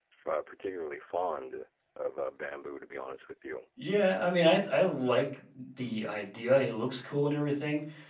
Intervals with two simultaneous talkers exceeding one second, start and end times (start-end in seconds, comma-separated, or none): none